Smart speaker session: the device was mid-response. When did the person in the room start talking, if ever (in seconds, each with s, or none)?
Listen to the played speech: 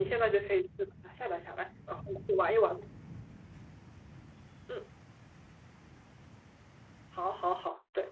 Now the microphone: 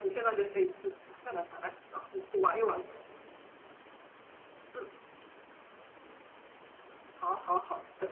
none